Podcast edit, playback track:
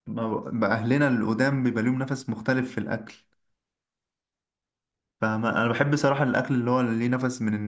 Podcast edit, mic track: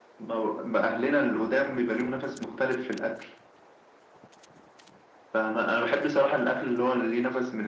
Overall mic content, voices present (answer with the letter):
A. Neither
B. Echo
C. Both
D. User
B